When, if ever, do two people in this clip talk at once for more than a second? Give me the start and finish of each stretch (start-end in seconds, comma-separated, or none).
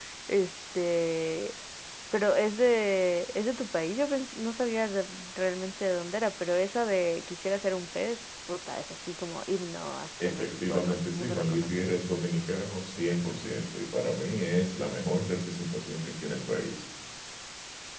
10.2-11.7